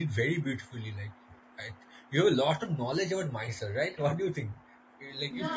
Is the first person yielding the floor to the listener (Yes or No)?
Yes